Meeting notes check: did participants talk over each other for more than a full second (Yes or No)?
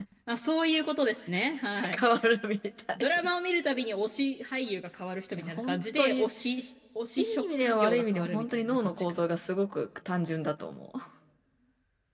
Yes